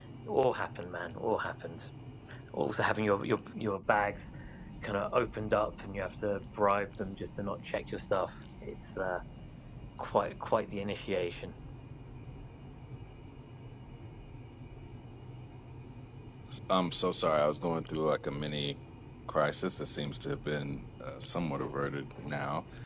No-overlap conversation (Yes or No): Yes